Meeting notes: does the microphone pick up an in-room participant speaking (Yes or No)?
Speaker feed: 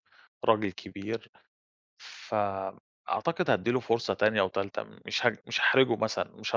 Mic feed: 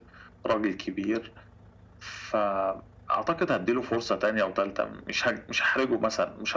No